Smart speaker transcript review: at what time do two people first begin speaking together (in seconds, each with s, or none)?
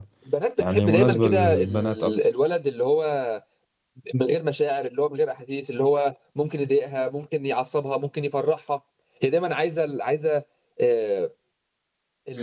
0.6 s